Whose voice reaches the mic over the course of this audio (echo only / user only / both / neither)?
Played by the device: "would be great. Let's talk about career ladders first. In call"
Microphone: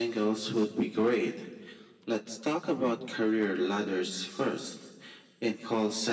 echo only